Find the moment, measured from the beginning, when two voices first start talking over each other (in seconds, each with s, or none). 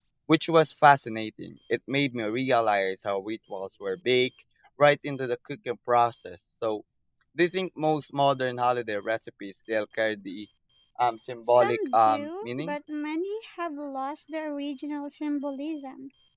11.5 s